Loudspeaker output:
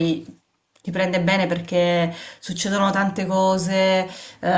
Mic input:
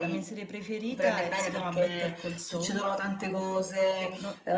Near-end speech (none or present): present